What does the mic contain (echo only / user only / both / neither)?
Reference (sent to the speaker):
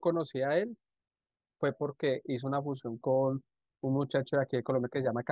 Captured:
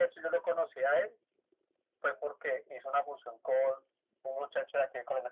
echo only